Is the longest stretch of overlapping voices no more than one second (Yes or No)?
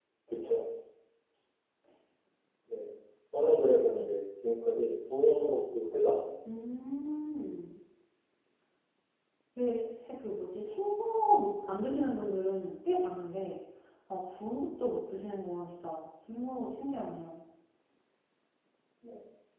Yes